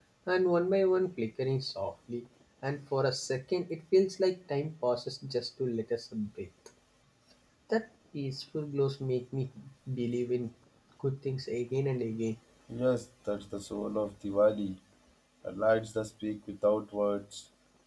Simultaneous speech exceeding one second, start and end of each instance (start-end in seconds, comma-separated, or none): none